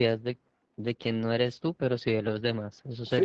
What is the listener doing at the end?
taking over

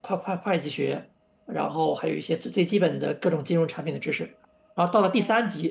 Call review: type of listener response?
listening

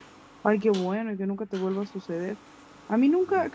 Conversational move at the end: listening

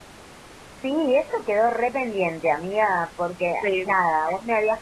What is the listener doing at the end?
listening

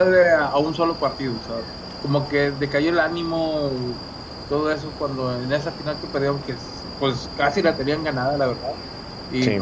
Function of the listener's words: listening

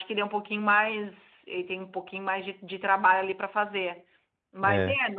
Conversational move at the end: listening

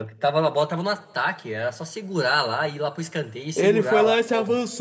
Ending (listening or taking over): taking over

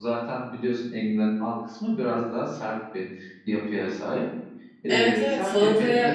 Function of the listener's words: taking over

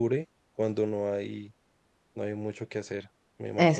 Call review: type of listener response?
taking over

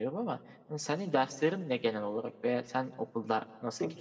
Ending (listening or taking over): taking over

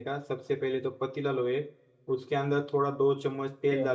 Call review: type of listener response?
listening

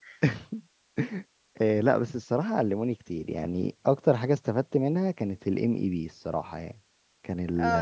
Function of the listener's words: taking over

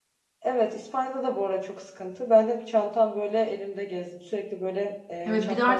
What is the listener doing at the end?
taking over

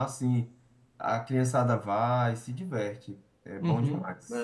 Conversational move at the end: taking over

